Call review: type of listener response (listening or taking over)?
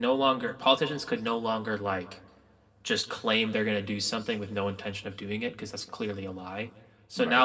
listening